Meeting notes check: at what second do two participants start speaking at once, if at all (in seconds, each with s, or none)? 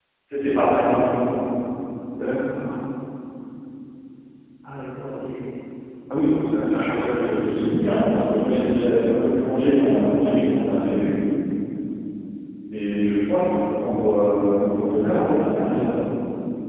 6.7 s